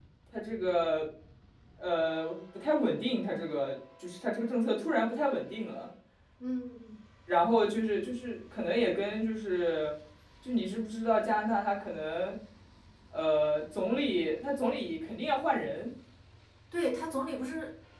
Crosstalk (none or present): none